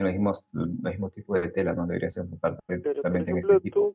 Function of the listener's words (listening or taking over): taking over